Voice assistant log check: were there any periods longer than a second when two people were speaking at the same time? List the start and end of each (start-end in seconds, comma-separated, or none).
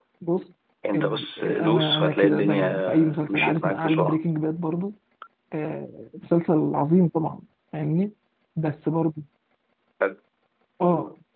1.0-4.2